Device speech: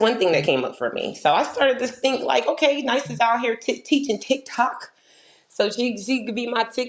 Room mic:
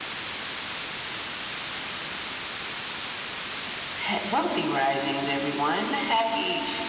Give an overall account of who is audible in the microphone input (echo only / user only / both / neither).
user only